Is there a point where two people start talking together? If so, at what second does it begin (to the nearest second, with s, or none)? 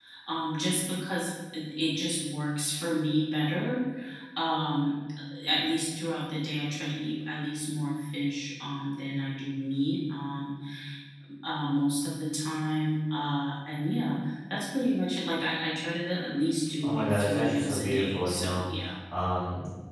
17 s